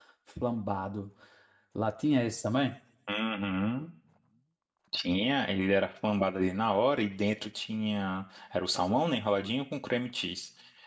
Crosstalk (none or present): none